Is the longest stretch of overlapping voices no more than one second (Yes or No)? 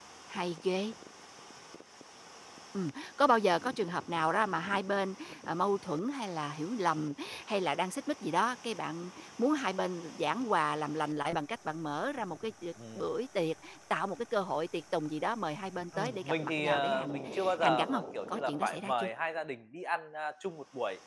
No